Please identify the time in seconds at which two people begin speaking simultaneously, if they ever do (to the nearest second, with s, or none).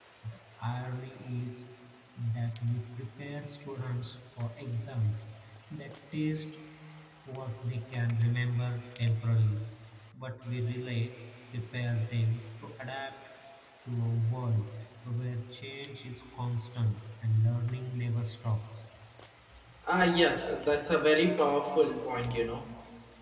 none